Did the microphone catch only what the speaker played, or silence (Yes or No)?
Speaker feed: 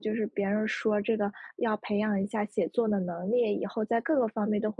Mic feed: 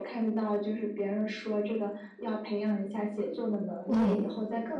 No